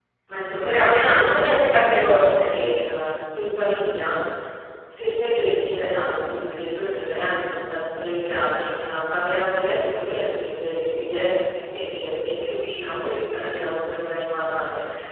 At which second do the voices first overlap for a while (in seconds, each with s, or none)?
0.7 s